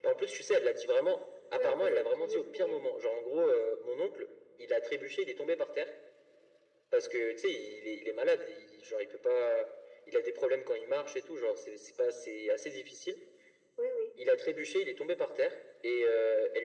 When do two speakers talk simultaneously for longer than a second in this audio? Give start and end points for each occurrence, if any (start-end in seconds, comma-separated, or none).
1.6-2.8